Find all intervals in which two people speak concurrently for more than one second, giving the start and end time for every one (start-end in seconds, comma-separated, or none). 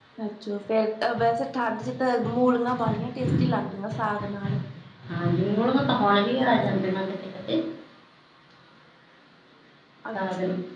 none